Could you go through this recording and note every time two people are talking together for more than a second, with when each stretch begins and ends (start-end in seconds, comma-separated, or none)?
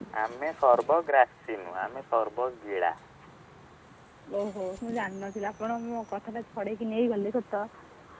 none